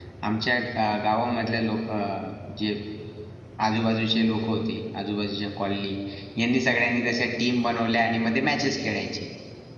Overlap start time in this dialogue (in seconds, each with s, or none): none